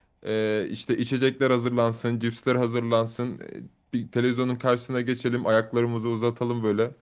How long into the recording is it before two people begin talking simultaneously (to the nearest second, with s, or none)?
none